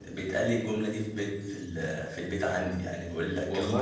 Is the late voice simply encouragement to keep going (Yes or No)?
Yes